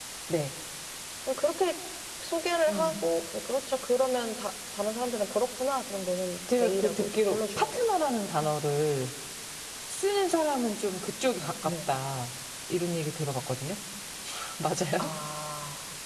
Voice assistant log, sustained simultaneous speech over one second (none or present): present